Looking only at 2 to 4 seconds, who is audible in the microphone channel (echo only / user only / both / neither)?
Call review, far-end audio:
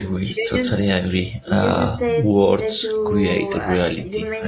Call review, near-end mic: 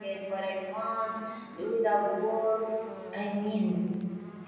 user only